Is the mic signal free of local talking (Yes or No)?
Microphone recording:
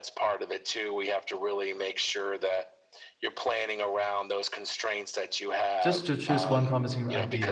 No